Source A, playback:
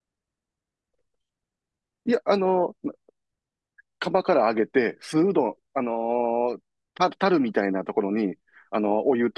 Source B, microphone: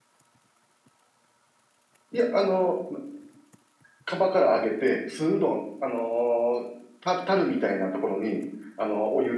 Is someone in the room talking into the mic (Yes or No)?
No